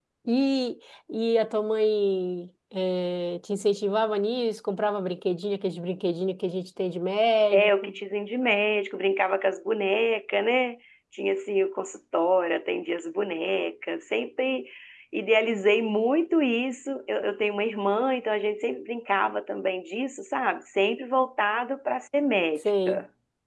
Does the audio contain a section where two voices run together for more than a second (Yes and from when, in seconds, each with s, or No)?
No